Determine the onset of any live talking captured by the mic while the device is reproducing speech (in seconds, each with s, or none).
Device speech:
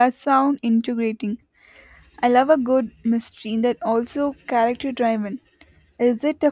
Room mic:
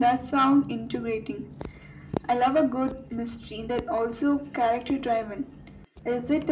none